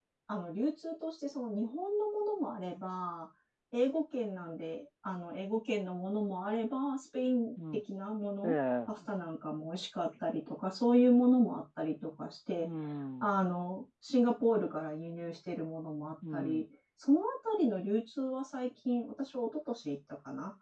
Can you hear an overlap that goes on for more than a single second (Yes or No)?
No